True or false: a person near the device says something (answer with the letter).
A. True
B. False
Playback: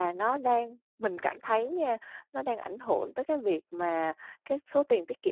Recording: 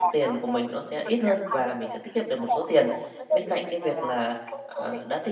A